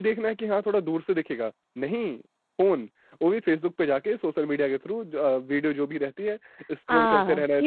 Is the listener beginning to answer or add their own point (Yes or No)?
Yes